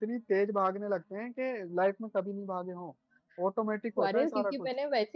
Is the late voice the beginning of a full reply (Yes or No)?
Yes